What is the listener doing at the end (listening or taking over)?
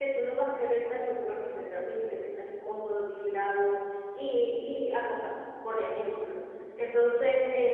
listening